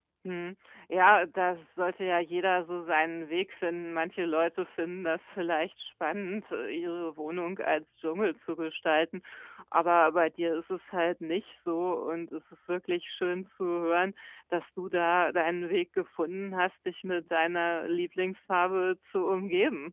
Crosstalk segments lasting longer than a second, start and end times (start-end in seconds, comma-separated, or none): none